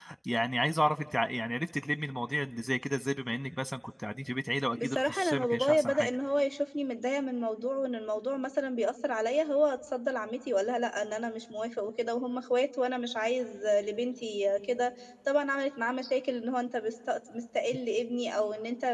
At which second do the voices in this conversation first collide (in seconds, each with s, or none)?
4.8 s